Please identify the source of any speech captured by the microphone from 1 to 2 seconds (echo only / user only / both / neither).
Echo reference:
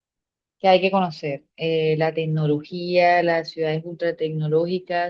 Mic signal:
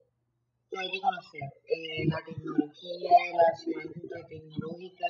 echo only